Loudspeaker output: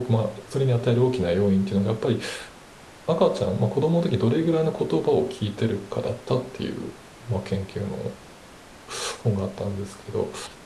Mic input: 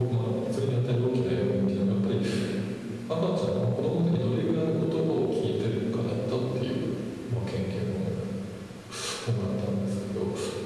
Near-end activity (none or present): none